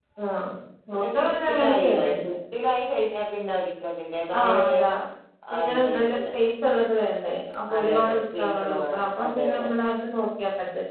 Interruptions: present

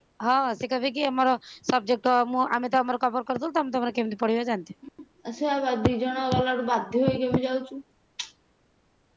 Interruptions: none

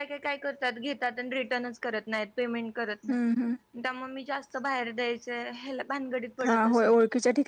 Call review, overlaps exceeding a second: none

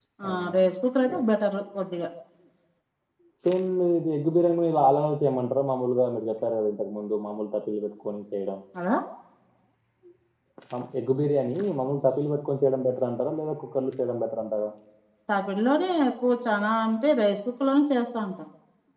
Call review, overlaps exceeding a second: none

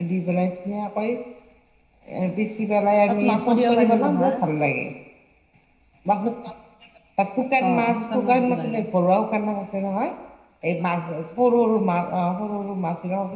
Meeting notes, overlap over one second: present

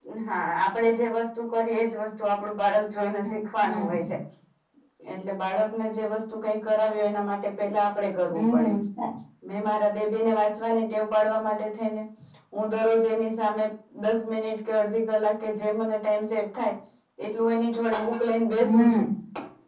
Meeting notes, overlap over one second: none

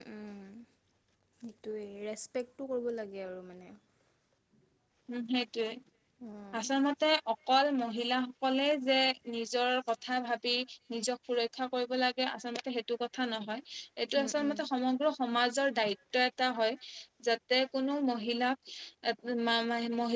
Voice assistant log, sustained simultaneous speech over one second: none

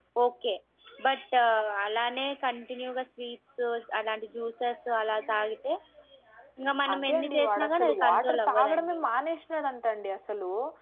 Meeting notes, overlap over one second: present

